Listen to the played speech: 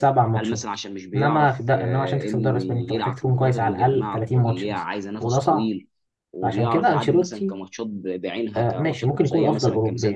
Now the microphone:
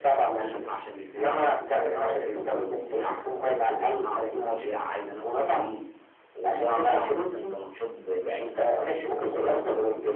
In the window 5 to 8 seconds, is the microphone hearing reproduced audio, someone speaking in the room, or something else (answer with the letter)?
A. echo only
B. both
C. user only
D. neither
A